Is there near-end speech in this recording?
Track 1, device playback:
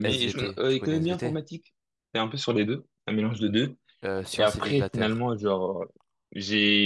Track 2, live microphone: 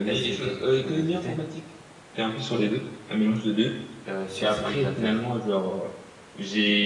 No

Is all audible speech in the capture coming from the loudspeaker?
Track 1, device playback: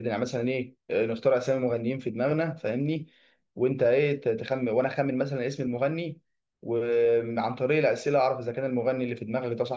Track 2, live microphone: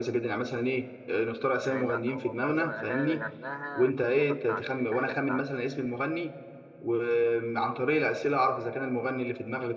No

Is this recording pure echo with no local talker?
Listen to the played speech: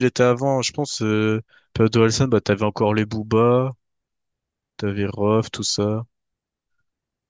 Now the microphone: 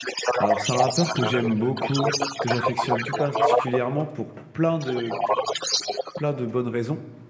No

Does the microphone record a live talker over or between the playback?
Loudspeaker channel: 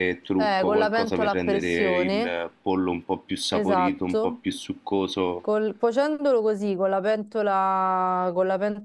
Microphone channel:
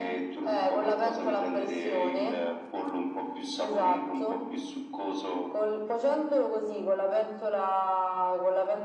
No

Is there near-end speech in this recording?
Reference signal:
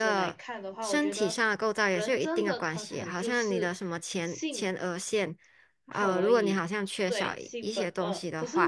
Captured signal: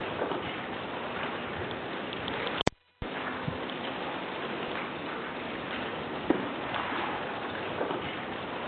No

